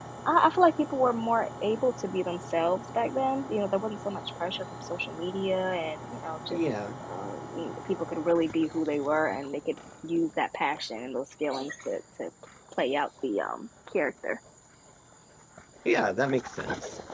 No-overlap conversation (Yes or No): Yes